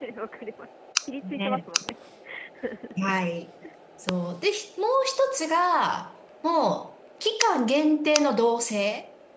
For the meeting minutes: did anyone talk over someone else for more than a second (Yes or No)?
No